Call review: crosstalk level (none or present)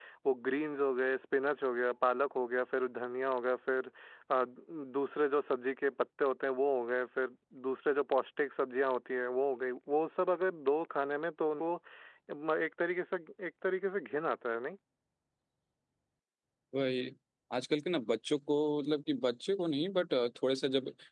none